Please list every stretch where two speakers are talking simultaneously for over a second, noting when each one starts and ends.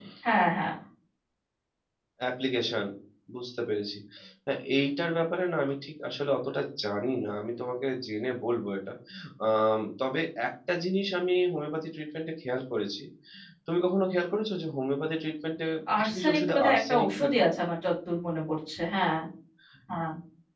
16.0-17.4

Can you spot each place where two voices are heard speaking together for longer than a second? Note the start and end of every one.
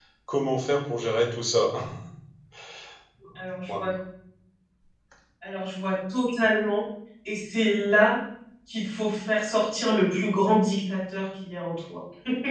none

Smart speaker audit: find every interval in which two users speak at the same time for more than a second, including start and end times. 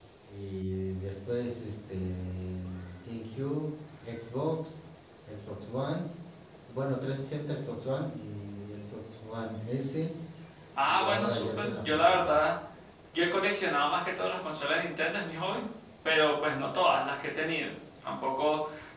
10.9-12.4

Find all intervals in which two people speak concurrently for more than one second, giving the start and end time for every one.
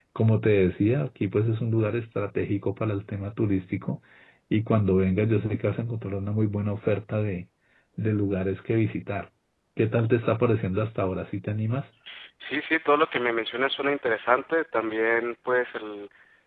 none

